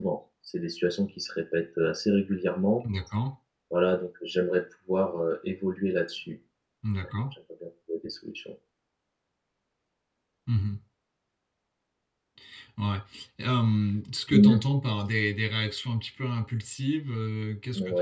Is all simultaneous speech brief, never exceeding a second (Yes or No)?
Yes